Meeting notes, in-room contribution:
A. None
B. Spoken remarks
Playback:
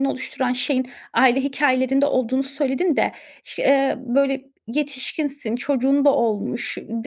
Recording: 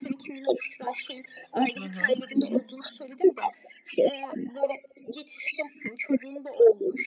B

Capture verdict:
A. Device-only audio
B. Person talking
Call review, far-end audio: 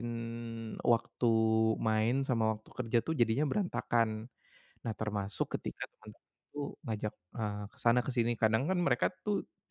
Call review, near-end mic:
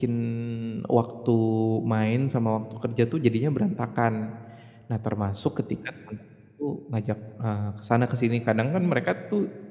B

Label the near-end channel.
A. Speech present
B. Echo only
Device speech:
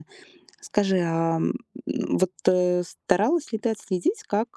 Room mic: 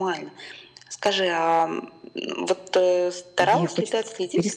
A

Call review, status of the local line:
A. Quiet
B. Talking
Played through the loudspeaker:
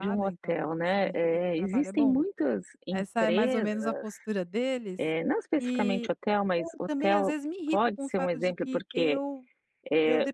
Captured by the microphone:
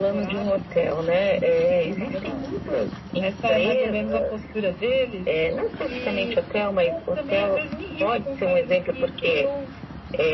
A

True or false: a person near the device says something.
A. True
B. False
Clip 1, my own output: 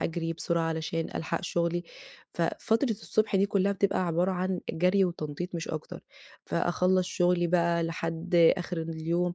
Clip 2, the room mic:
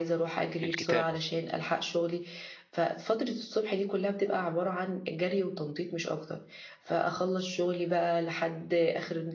A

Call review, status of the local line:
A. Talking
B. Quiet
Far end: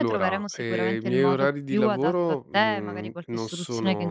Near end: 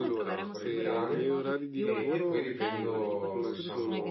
A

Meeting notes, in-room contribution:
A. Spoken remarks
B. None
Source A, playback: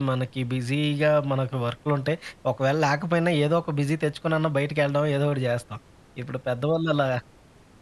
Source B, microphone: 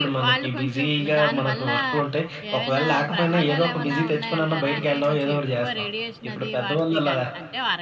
A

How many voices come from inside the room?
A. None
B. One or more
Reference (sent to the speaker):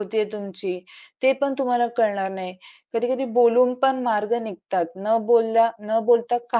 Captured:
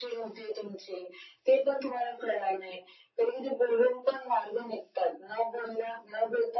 A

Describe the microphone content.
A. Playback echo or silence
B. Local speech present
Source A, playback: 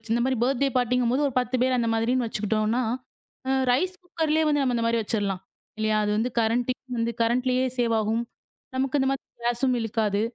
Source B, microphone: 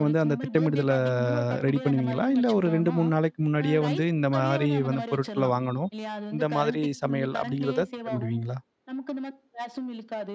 B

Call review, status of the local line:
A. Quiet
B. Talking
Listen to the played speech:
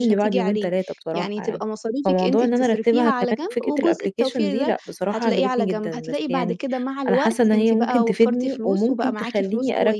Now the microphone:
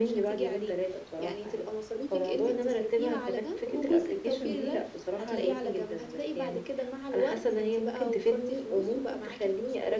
A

